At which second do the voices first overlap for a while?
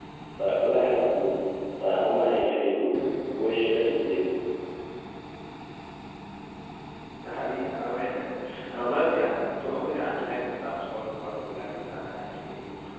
none

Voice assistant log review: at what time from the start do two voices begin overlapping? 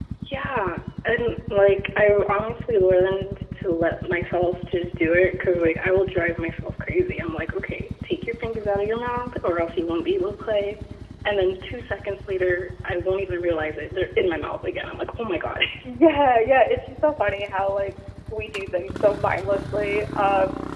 none

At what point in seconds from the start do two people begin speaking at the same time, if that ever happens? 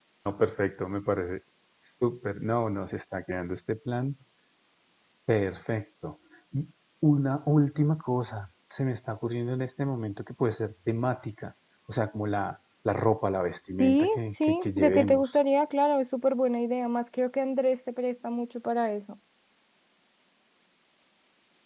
14 s

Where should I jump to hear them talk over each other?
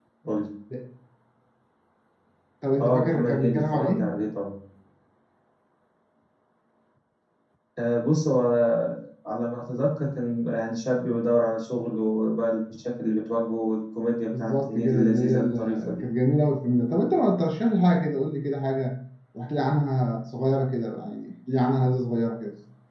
3 s

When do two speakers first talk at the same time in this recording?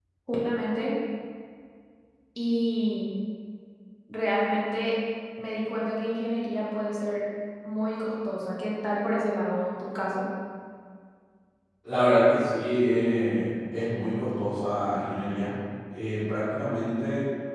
none

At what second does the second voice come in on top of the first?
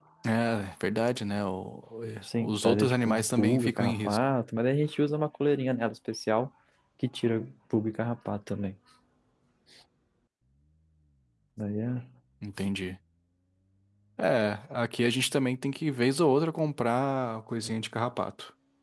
2 s

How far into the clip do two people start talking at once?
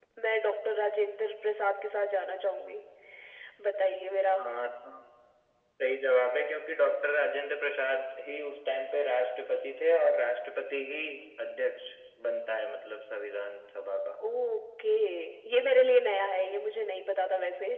none

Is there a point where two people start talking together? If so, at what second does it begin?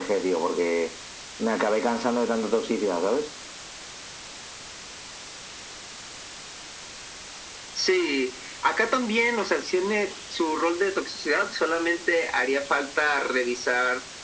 none

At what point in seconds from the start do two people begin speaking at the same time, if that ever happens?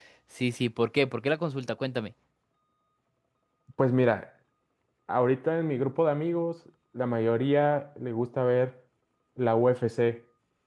none

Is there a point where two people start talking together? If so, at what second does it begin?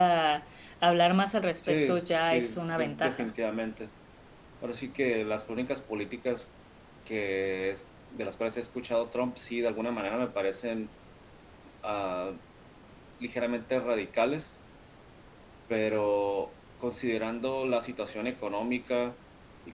2 s

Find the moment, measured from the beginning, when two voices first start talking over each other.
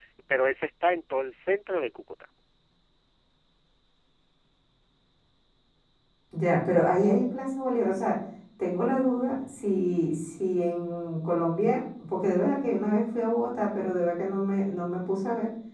none

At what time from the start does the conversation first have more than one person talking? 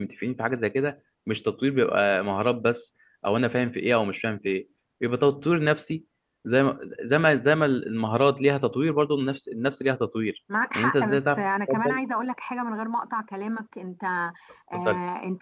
11 s

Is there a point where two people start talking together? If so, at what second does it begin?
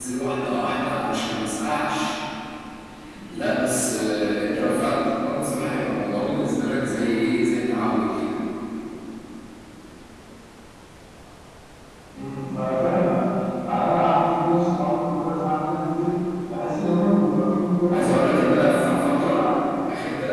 18 s

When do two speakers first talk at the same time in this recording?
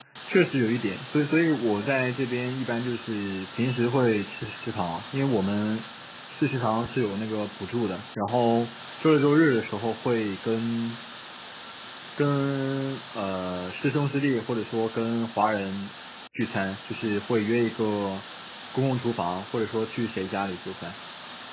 none

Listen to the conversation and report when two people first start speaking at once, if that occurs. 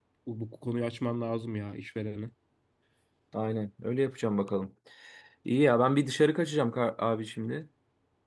none

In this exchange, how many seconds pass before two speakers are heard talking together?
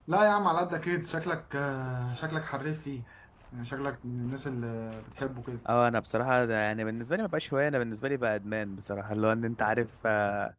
none

